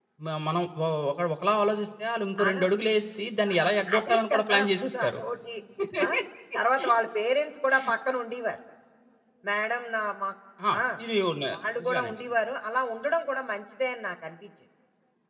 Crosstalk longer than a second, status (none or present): present